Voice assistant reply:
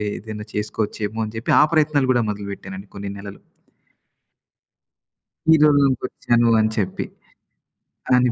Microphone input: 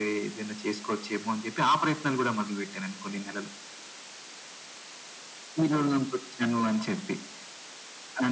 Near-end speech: none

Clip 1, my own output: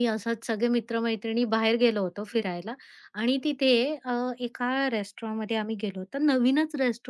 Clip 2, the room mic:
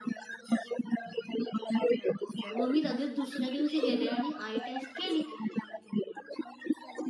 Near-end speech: present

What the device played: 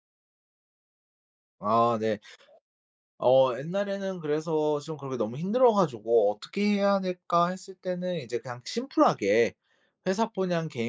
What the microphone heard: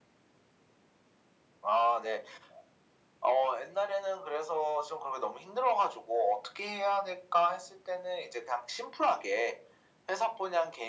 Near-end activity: none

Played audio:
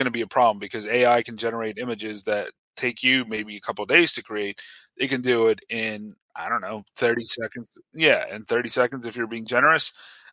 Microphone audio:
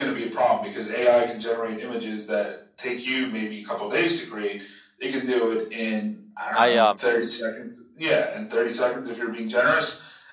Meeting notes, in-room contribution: present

